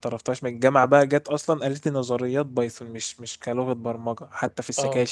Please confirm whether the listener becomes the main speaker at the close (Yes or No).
No